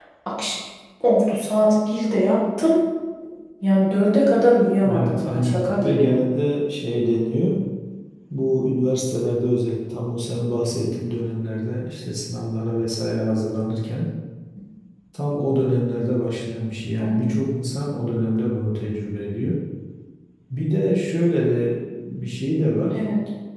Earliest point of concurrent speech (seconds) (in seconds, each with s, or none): 4.8 s